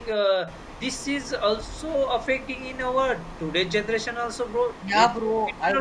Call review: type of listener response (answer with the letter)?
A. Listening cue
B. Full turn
B